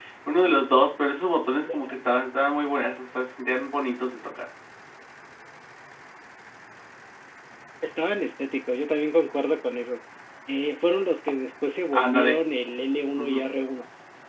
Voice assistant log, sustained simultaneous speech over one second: none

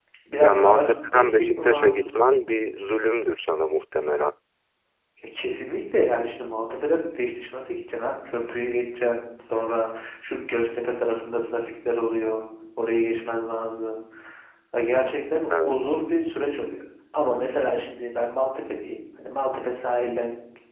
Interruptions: present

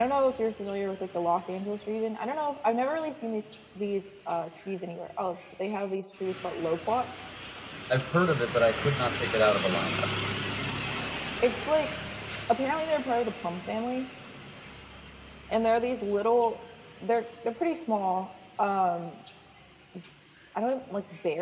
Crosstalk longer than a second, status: none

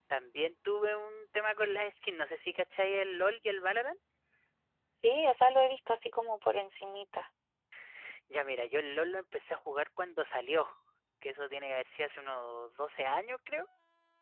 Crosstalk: none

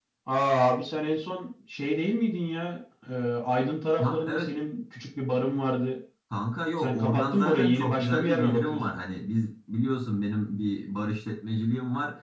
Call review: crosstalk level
present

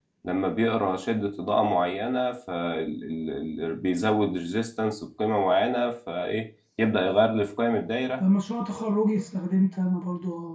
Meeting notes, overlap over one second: none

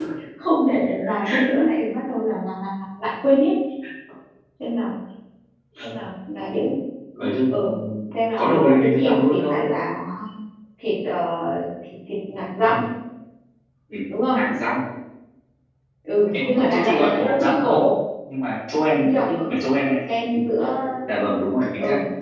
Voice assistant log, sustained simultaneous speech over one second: present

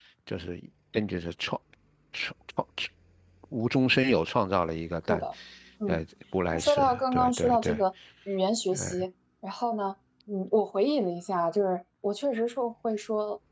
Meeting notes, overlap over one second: present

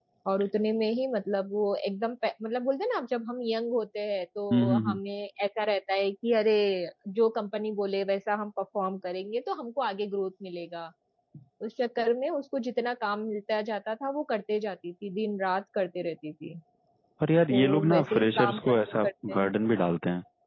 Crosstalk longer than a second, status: present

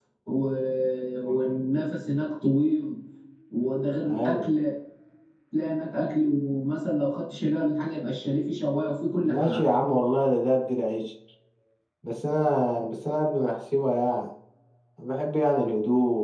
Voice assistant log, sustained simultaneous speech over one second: none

